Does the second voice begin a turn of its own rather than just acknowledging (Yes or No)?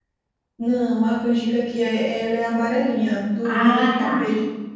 Yes